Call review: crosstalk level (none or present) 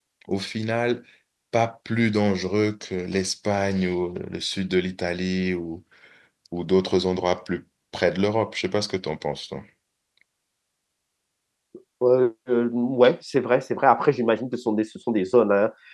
none